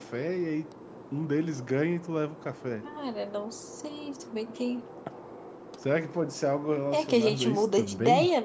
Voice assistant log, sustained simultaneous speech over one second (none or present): present